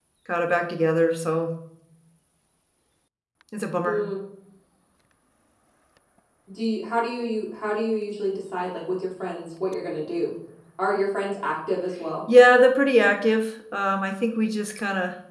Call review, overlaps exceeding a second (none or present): none